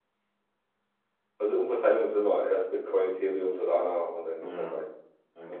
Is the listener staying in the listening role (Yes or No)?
No